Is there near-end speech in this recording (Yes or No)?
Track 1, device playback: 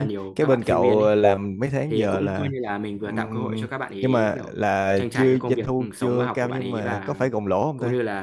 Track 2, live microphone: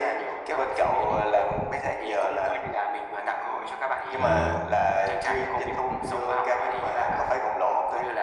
Yes